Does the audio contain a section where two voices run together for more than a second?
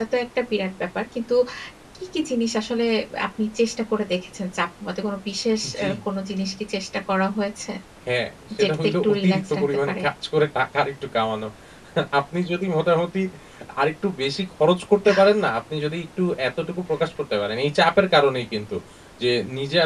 Yes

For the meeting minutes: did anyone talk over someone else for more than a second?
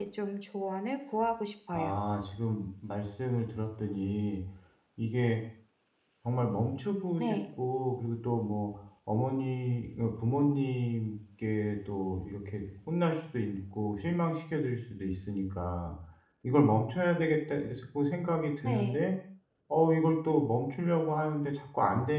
No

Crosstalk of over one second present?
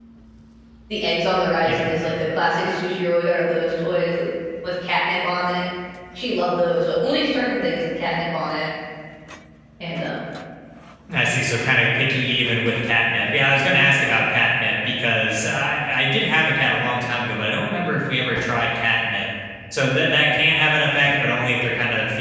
No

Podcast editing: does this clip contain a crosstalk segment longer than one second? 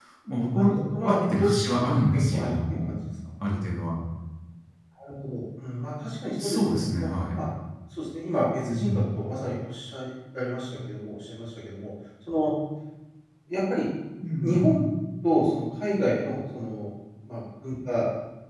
Yes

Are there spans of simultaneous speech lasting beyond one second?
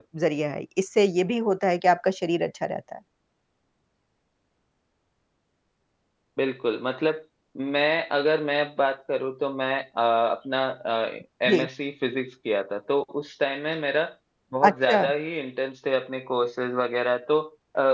No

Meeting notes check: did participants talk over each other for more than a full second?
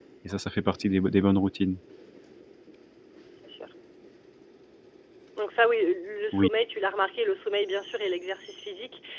No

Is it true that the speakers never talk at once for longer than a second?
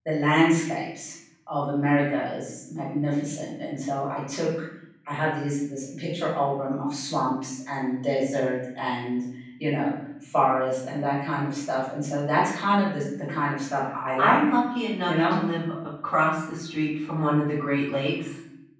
Yes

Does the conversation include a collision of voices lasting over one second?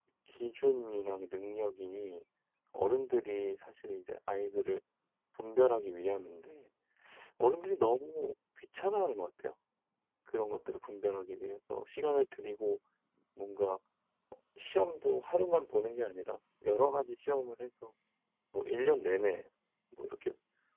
No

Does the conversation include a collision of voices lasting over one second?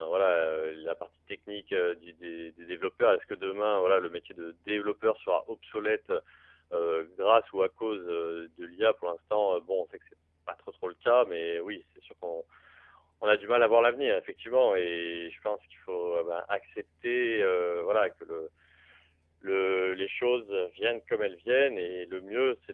No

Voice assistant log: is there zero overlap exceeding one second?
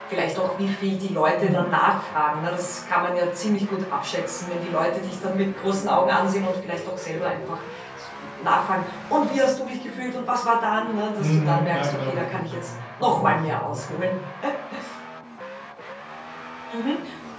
No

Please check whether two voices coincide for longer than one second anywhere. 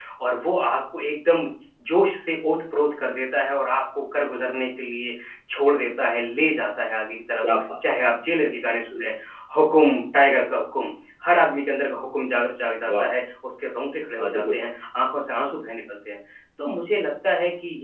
No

